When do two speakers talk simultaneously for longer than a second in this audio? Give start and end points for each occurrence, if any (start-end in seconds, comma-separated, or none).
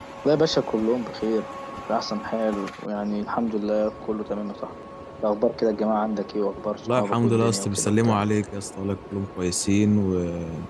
6.8-8.2